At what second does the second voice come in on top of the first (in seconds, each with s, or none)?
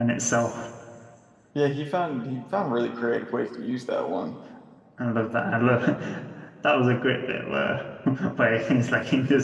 none